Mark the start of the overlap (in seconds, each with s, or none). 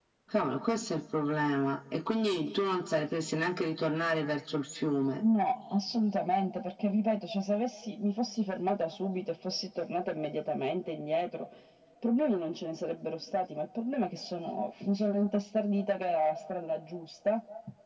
none